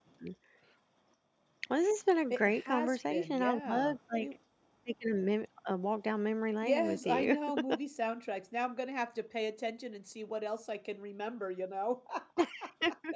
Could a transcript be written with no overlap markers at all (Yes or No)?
No